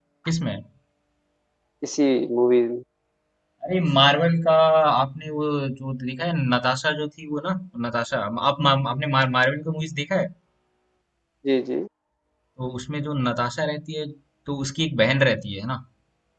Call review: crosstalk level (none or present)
none